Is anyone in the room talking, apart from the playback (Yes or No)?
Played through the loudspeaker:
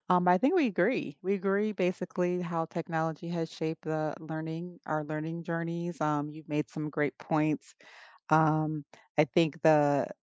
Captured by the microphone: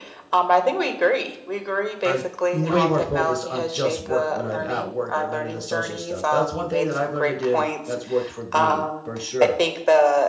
Yes